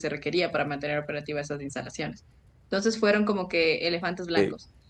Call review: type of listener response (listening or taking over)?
listening